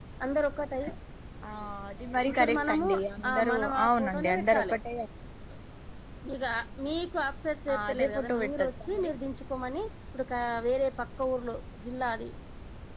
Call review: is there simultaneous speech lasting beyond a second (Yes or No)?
Yes